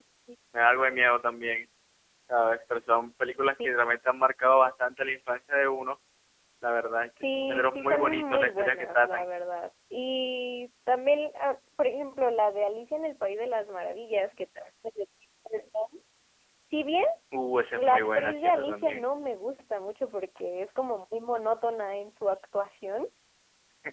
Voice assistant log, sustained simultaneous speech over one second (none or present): present